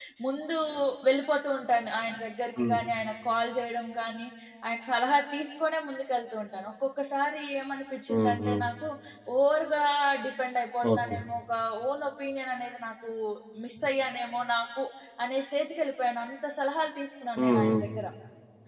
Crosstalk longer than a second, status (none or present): none